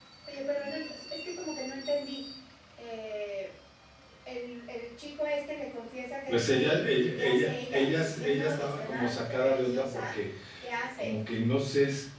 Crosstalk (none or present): present